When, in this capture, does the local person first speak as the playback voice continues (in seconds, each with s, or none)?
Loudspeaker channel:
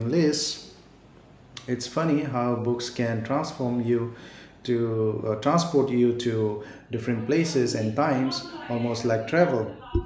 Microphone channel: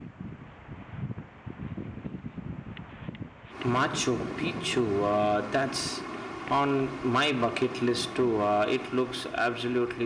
3.6 s